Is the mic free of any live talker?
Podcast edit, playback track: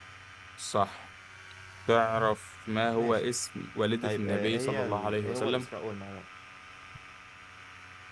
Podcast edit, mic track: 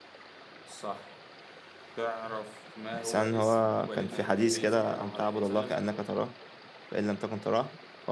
No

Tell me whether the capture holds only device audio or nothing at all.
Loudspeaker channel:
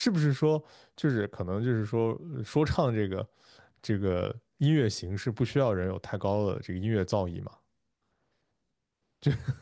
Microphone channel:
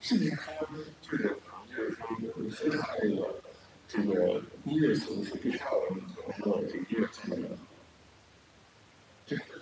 Yes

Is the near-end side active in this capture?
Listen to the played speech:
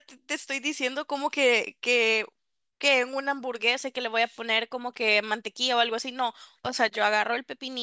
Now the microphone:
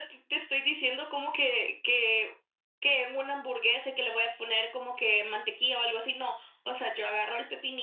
No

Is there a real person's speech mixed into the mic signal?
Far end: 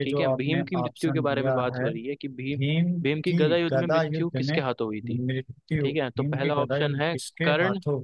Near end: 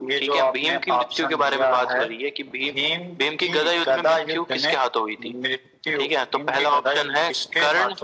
No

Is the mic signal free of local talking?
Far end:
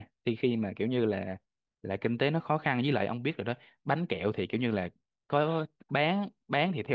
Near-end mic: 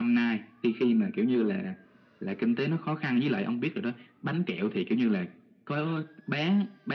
Yes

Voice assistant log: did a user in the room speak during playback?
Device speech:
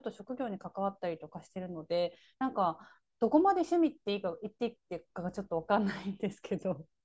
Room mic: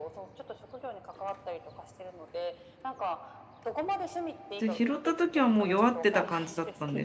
Yes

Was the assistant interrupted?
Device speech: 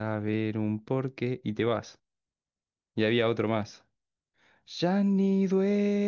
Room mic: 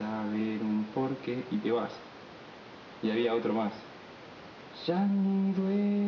No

